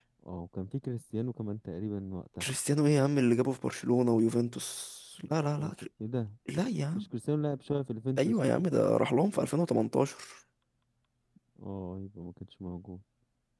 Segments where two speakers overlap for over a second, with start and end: none

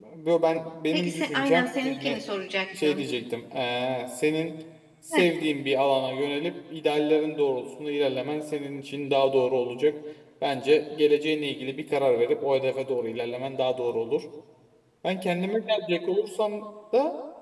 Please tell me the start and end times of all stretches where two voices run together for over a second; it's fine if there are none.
0.9-2.2

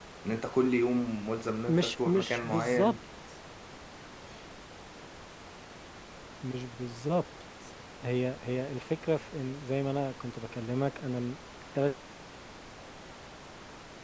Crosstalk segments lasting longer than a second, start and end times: 1.7-2.9

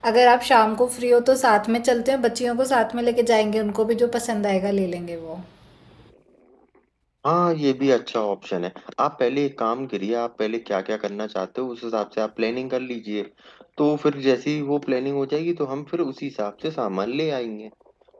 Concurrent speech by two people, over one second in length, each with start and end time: none

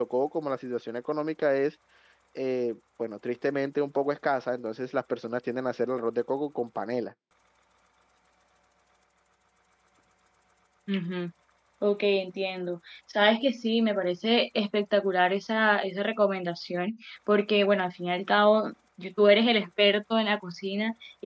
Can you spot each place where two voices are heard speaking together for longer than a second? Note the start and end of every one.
none

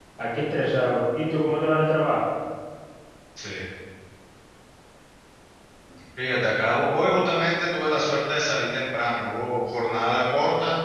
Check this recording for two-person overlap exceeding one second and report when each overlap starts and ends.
none

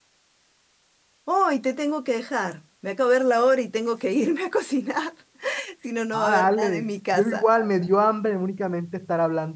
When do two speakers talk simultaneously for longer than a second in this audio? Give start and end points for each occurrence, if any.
6.1-7.5

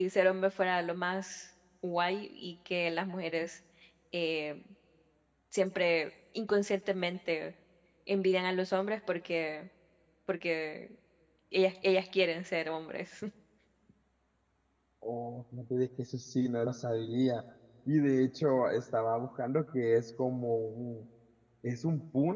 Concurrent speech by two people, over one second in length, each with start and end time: none

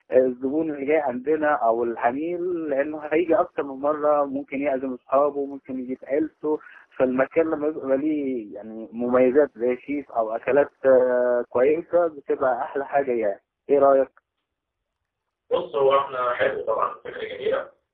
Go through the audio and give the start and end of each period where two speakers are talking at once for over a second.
none

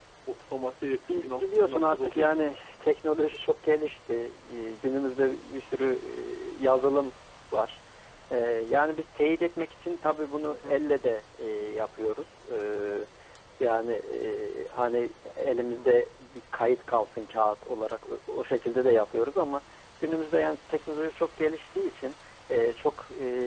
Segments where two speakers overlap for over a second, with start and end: 1.1-2.4

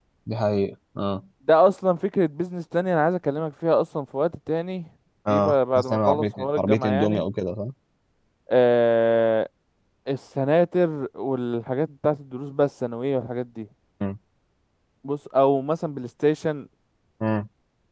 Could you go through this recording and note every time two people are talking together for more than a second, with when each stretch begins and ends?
5.3-7.2

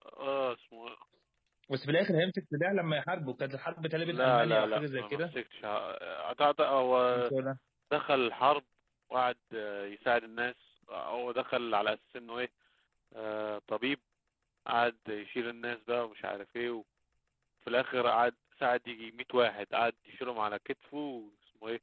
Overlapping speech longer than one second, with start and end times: 4.1-5.3

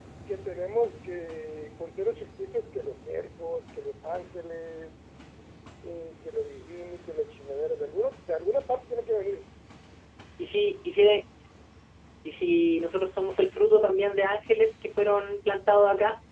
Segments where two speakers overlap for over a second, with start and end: none

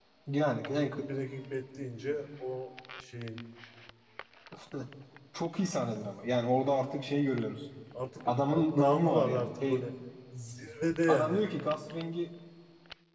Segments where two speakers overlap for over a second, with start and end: 8.2-9.8

